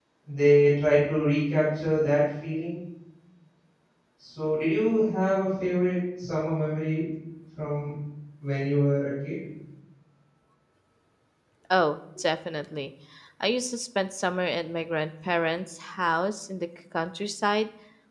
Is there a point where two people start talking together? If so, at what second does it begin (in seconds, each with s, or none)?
none